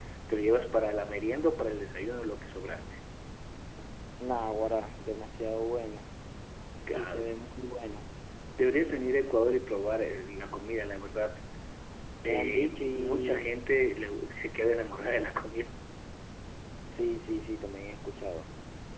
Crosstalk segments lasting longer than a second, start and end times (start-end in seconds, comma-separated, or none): 12.3-13.6